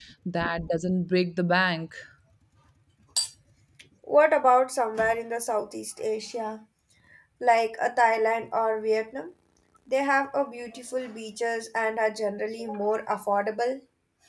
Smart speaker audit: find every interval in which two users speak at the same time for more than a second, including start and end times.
none

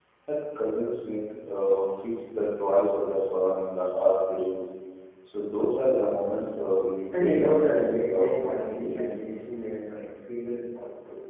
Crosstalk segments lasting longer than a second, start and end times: 7.2-9.0

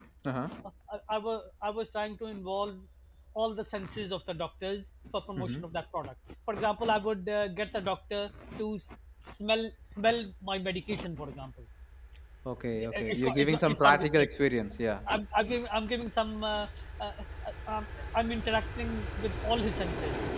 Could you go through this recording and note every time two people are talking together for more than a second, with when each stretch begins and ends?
12.8-14.3

